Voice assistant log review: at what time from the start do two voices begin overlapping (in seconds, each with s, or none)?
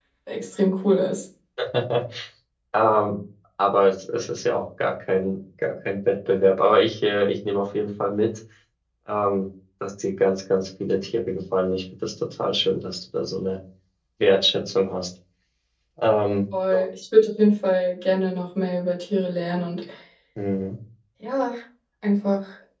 none